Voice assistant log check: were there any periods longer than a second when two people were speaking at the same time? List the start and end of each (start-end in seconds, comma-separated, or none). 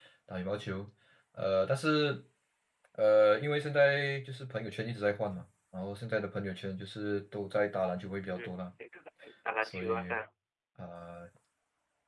none